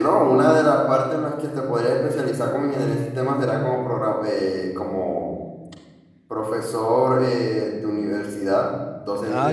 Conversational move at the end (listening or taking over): listening